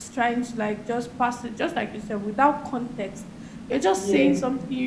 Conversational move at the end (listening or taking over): listening